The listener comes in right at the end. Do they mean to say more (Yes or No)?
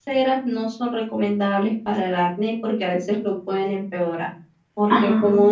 No